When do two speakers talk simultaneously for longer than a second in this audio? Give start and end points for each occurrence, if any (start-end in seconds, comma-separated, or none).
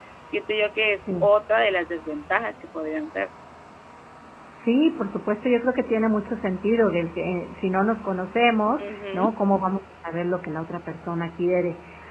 none